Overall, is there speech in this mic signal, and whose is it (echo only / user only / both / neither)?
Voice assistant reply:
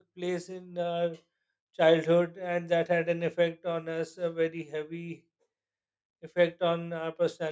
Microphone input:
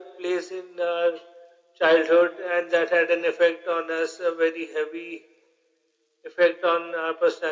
echo only